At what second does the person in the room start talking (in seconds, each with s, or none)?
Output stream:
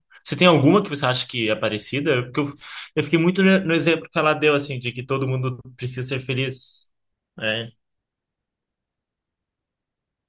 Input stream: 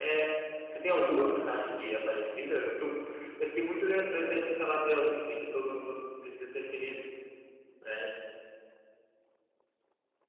none